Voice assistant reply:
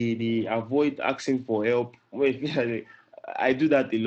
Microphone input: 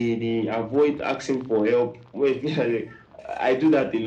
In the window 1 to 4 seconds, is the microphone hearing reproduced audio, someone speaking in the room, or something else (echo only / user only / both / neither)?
echo only